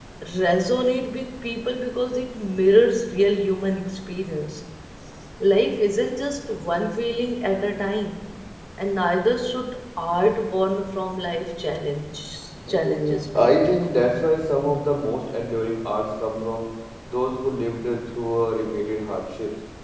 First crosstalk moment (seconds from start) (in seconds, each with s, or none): 12.7 s